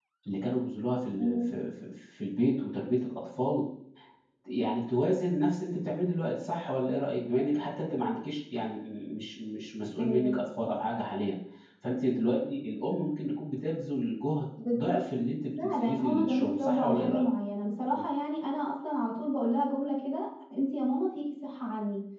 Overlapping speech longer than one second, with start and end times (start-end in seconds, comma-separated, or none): 15.6-17.3